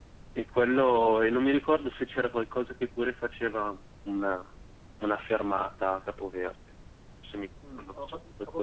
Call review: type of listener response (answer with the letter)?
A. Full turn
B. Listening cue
A